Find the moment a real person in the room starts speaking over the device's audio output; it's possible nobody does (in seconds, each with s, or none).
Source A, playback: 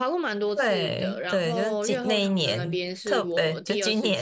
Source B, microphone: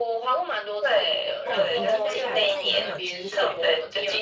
1.4 s